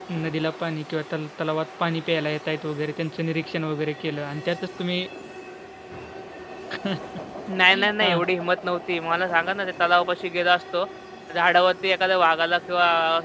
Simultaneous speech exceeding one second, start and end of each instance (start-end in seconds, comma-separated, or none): none